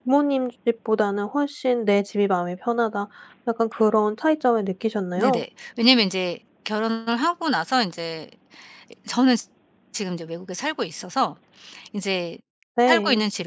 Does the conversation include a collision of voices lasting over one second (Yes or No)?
No